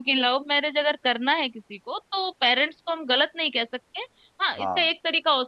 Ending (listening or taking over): listening